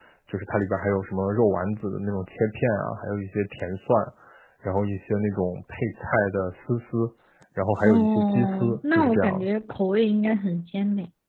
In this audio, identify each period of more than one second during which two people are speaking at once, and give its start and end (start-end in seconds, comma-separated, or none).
7.8-9.5